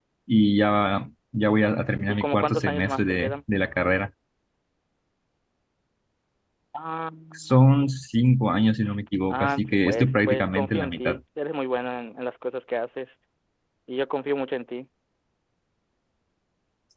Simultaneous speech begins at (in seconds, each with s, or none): 2.1 s